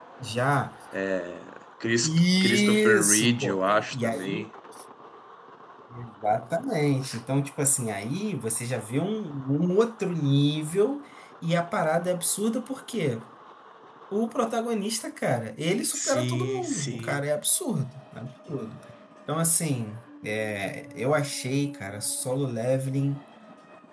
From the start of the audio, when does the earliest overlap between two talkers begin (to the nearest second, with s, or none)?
2 s